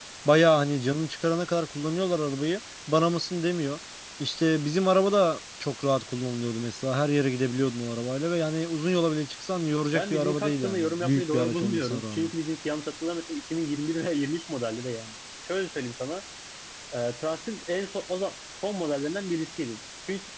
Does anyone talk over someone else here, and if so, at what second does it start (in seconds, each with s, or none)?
9.9 s